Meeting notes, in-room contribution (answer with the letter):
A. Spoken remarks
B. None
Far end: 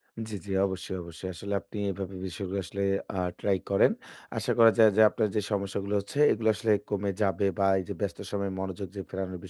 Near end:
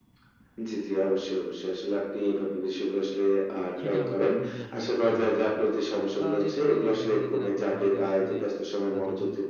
A